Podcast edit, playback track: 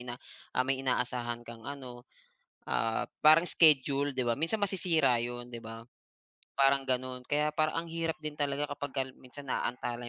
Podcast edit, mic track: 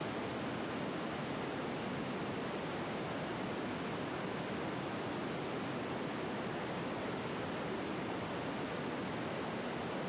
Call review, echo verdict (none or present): none